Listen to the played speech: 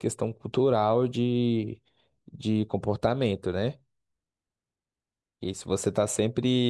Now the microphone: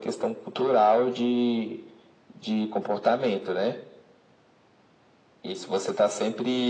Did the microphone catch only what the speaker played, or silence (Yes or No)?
Yes